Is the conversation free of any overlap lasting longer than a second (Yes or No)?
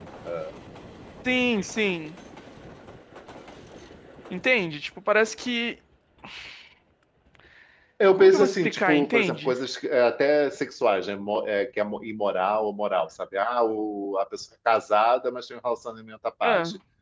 No